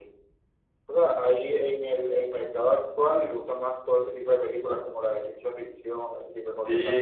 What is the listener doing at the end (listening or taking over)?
taking over